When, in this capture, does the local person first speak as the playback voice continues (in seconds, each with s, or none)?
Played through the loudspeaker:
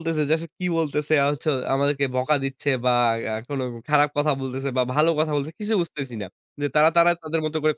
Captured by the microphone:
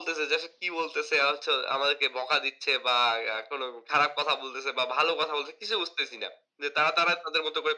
none